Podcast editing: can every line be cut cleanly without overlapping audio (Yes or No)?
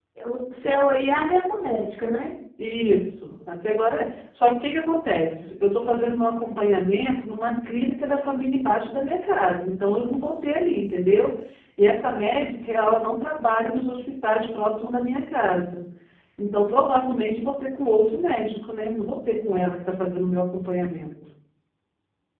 Yes